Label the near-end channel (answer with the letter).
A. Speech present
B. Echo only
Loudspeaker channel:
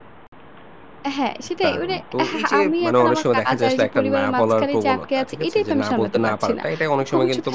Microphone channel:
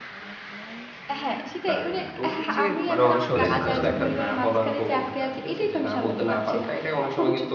A